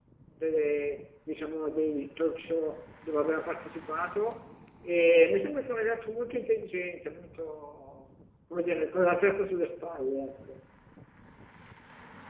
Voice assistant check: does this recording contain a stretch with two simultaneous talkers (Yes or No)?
No